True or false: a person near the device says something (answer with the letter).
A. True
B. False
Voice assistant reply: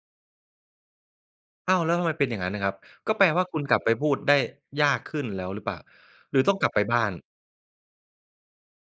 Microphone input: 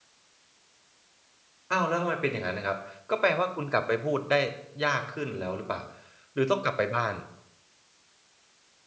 B